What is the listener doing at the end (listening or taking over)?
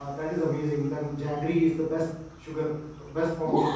taking over